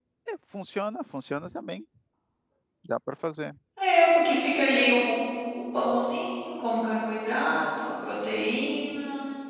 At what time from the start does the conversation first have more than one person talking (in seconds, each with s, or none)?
none